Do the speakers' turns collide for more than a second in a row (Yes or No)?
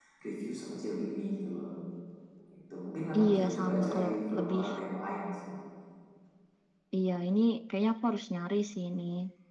Yes